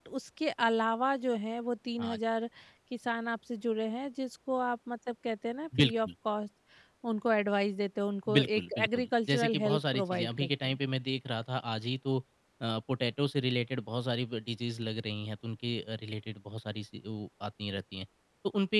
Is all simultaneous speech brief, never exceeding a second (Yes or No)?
No